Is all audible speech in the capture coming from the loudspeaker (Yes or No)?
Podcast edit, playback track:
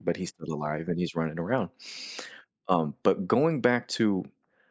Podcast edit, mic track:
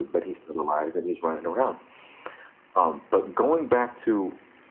Yes